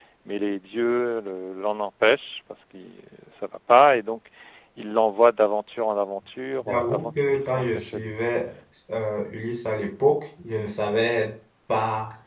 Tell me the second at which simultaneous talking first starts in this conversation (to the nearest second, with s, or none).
7 s